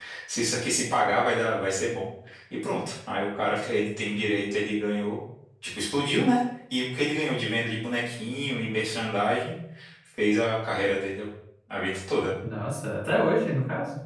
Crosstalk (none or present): none